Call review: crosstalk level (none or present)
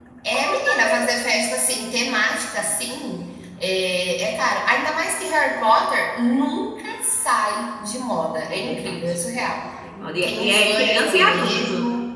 present